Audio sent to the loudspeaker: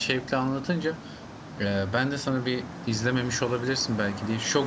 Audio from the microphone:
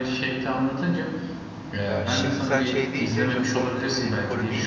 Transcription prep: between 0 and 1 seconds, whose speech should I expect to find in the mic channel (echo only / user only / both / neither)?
echo only